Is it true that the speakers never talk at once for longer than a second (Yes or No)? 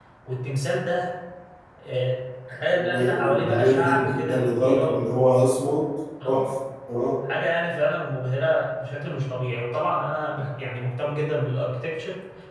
No